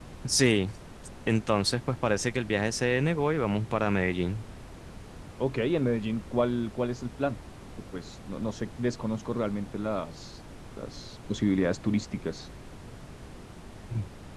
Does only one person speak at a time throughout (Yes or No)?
Yes